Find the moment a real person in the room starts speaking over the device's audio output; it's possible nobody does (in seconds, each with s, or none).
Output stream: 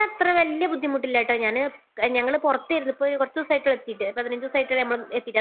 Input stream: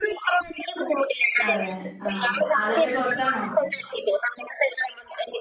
1.5 s